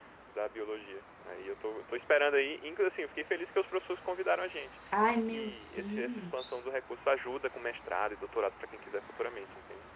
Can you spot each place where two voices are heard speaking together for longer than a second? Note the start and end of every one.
5.1-6.6

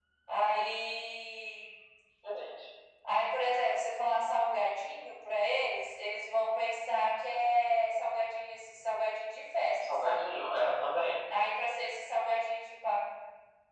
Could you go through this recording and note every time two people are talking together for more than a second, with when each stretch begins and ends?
none

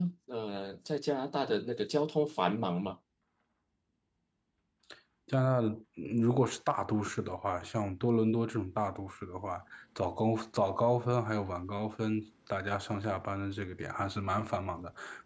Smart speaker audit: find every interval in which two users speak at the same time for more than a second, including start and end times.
none

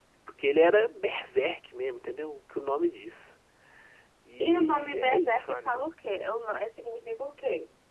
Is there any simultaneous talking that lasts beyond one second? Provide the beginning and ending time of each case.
4.4-5.9

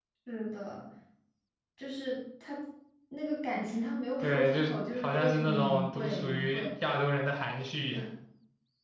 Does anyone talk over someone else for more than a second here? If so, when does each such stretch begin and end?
4.2-6.6

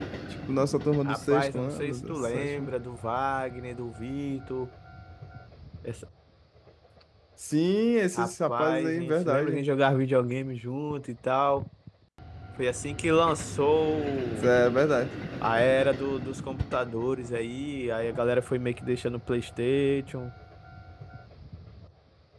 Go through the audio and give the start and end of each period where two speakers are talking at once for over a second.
1.1-2.7, 8.1-9.7

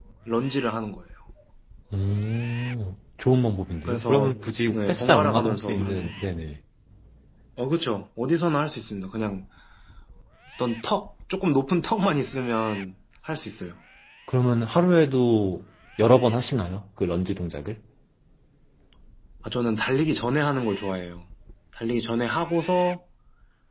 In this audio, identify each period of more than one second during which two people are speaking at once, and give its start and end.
4.7-6.2

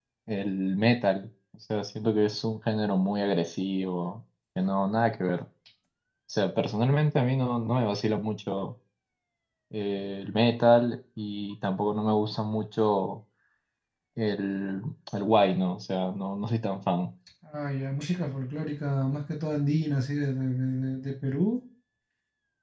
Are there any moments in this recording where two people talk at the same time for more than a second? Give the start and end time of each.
none

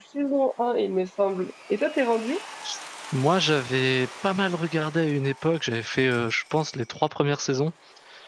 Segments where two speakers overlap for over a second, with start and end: none

